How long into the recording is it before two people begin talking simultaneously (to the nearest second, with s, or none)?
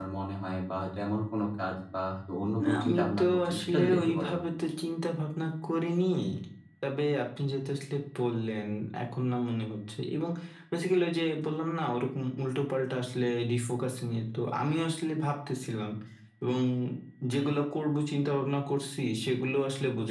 3 s